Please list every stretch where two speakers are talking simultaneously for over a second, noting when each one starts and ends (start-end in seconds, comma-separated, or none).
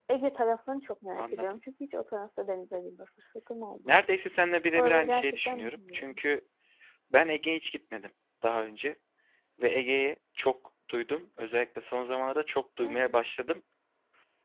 4.7-6.2